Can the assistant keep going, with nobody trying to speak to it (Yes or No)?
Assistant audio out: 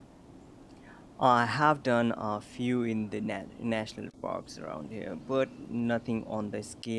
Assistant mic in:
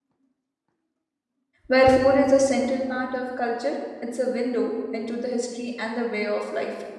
No